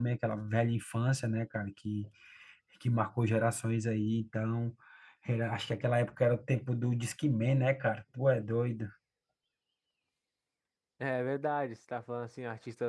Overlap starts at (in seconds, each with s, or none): none